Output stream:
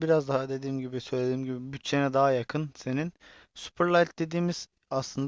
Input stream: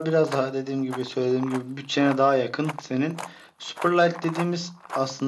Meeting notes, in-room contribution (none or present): none